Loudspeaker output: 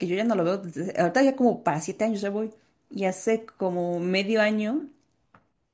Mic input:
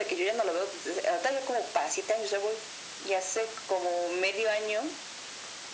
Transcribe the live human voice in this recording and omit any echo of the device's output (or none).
none